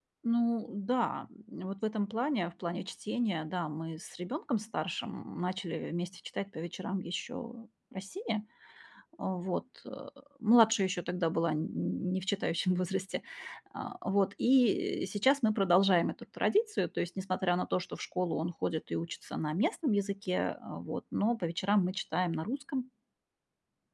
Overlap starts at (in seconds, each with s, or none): none